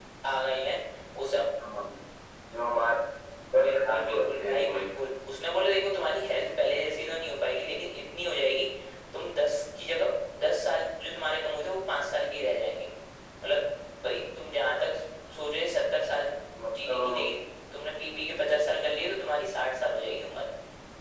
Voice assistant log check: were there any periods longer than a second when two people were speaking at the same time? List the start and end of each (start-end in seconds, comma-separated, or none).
3.6-5.1